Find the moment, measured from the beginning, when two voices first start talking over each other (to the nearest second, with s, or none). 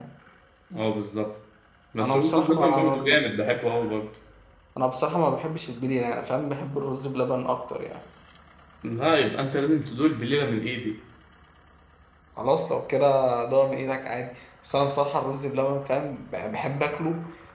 2 s